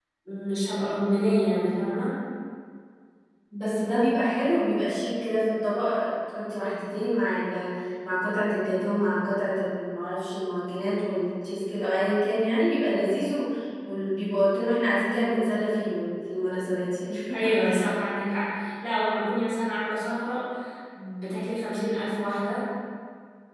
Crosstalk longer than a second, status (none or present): none